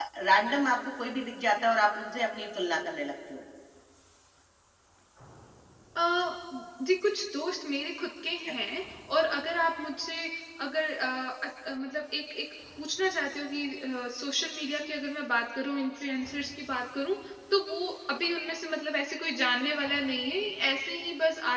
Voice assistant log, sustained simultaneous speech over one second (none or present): none